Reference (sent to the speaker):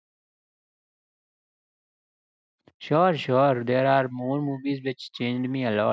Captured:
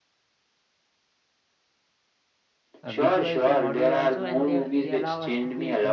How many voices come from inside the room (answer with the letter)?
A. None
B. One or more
B